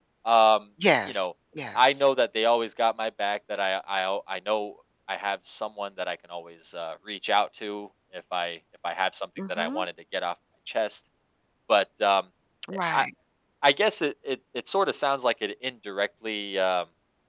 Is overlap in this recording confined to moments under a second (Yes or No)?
Yes